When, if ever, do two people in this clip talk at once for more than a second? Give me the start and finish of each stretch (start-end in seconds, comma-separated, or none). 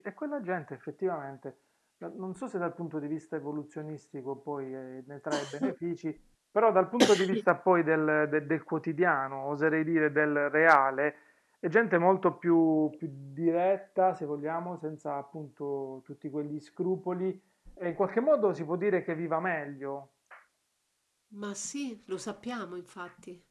none